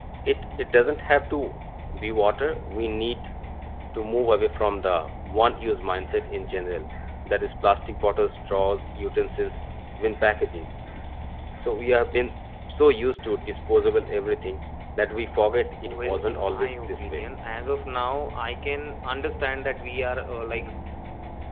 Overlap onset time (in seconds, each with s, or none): 15.8 s